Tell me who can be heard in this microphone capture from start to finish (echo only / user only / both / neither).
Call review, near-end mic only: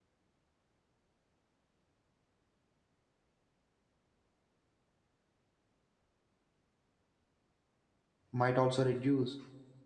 user only